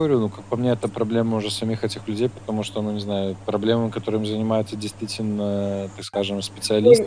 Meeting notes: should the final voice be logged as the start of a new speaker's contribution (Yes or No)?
Yes